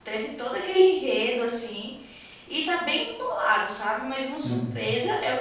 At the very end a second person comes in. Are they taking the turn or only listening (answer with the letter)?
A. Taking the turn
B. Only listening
B